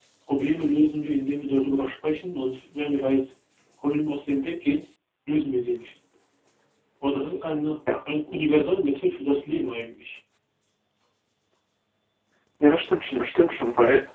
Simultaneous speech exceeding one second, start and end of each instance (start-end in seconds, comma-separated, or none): none